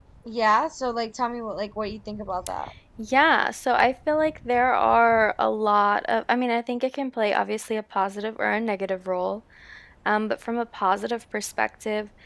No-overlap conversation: Yes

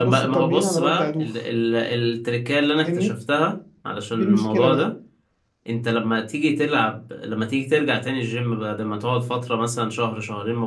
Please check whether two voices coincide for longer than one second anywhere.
Yes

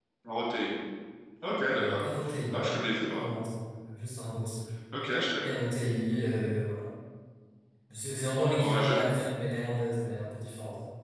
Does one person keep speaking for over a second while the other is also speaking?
No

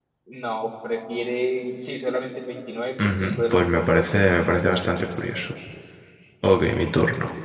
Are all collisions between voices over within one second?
No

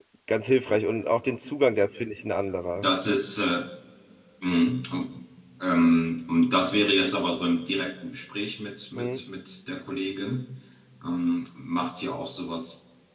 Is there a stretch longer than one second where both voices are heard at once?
No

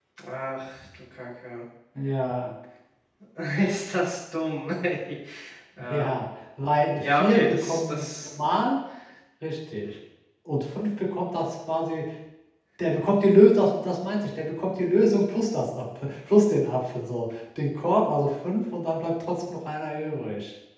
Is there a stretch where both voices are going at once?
Yes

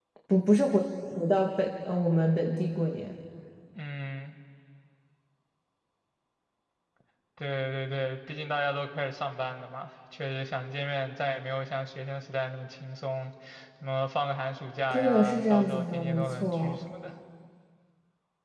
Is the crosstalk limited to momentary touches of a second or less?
No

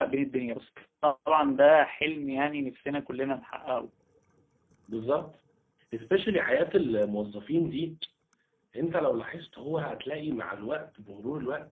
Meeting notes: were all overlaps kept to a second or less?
Yes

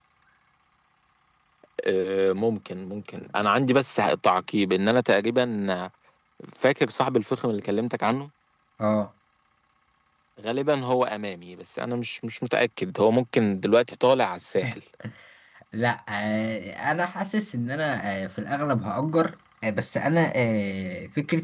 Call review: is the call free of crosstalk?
Yes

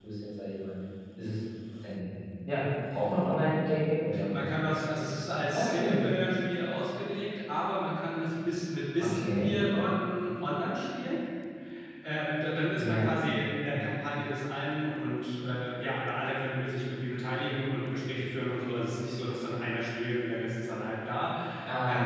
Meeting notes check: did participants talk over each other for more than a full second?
No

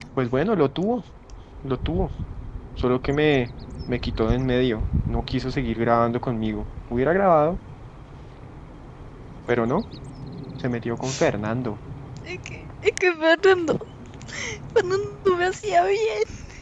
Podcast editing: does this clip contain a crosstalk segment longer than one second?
No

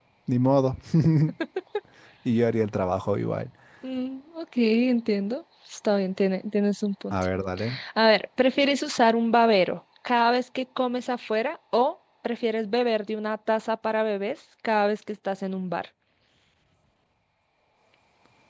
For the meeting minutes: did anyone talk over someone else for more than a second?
No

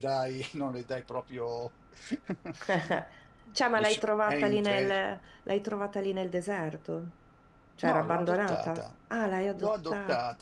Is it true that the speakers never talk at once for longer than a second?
No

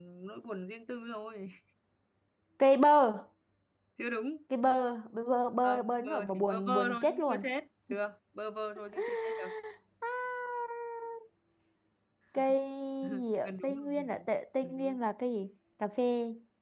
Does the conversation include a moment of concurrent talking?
Yes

